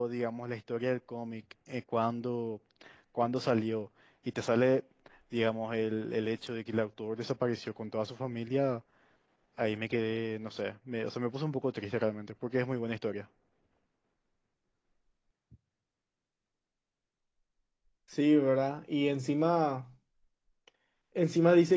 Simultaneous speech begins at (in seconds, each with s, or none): none